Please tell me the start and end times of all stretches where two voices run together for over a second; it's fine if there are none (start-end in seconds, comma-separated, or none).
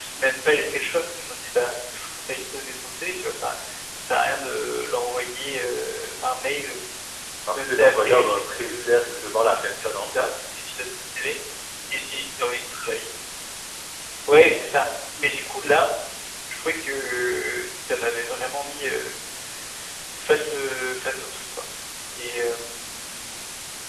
7.5-10.3